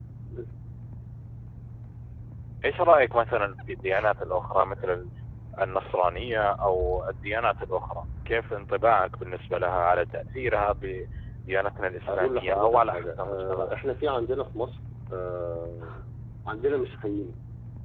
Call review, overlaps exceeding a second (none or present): present